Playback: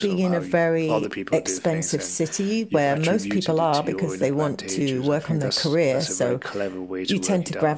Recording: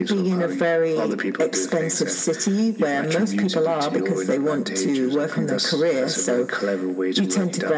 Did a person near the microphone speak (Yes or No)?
No